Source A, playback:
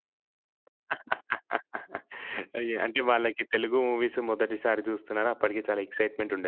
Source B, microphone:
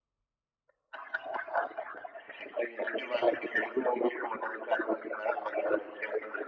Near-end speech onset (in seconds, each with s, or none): none